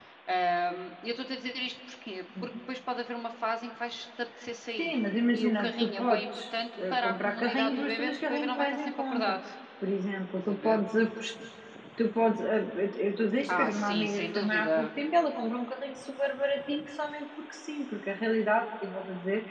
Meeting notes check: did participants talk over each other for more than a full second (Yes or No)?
Yes